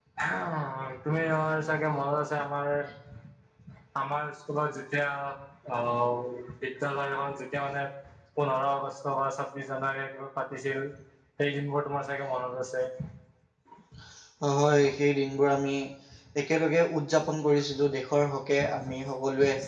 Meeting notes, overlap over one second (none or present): none